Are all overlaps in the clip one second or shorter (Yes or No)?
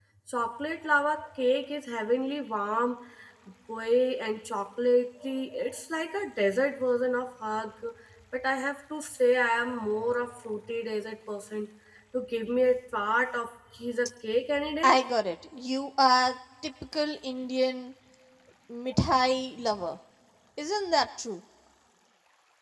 Yes